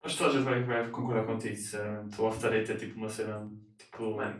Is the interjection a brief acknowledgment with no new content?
Yes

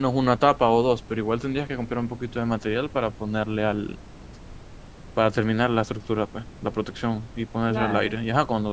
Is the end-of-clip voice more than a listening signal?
No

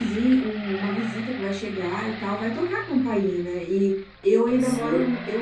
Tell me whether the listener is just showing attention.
Yes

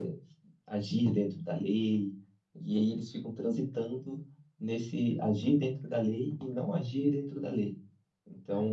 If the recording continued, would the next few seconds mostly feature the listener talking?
No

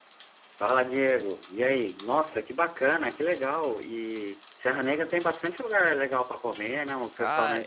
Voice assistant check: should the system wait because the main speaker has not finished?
No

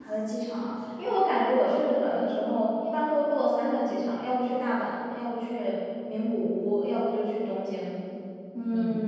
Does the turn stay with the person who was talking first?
No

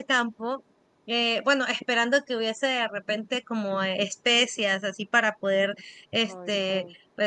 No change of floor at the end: Yes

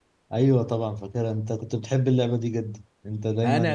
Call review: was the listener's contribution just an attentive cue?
No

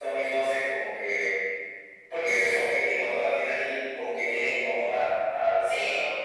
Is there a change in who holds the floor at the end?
Yes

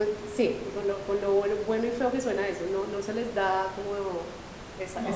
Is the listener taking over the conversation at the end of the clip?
No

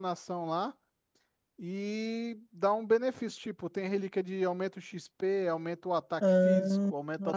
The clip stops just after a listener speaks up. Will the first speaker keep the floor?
No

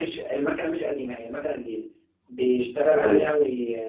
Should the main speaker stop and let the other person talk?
No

